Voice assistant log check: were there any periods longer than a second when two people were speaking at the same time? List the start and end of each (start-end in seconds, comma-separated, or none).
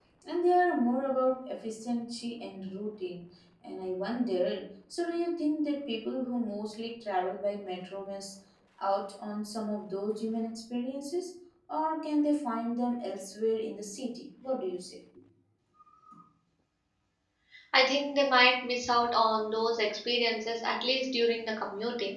none